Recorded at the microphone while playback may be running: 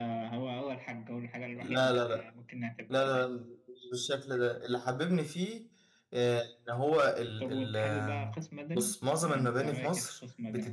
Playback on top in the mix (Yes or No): No